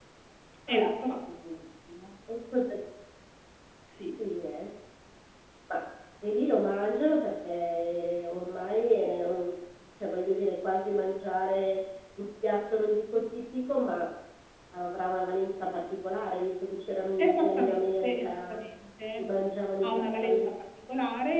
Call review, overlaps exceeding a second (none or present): present